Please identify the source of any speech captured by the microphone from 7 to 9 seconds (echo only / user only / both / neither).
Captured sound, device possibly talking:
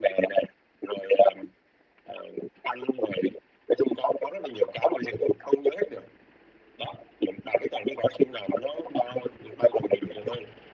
echo only